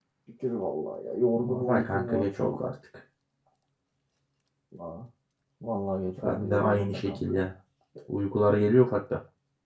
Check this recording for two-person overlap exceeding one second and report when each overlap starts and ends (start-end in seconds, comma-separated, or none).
1.4-2.6, 6.2-7.5